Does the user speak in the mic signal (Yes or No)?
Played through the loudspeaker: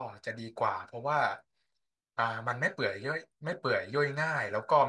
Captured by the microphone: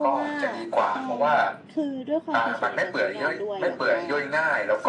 Yes